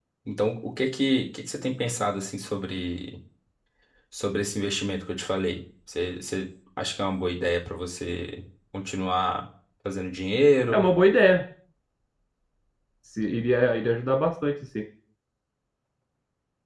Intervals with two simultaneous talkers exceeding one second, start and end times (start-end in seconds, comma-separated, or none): none